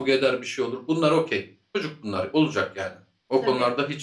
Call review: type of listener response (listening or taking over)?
listening